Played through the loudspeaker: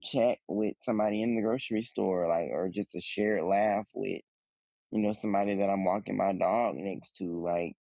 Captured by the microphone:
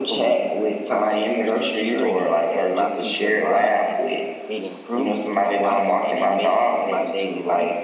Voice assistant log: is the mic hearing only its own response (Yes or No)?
No